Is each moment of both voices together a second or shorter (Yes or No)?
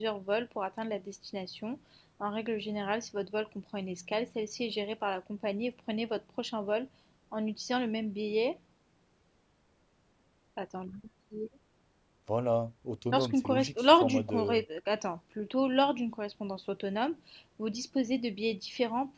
No